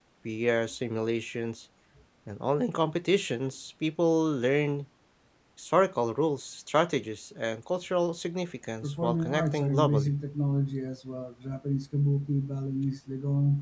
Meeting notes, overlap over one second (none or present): present